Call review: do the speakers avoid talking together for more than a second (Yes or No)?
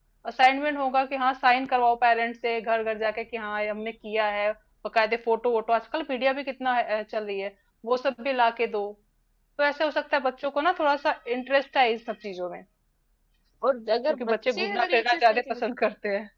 No